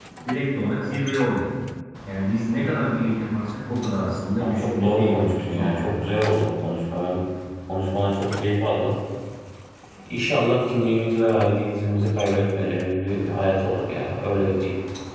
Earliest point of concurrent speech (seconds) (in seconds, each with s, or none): 4.4 s